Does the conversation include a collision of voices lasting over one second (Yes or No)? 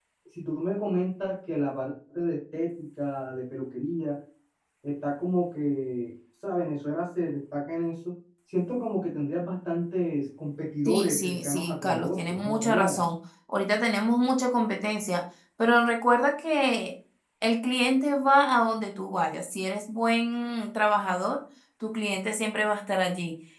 Yes